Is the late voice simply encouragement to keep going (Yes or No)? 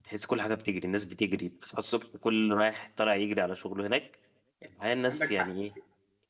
Yes